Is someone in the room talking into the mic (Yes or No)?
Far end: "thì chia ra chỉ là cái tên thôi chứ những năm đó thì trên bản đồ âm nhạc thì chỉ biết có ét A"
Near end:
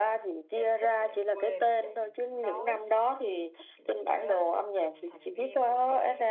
Yes